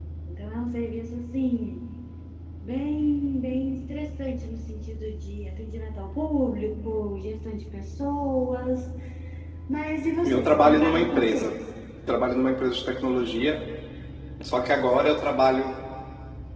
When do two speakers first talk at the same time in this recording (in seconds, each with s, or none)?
10.2 s